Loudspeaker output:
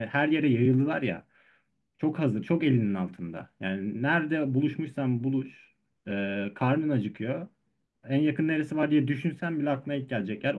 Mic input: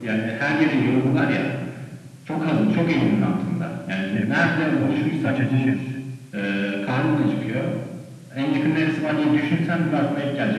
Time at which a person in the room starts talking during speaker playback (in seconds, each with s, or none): 4.0 s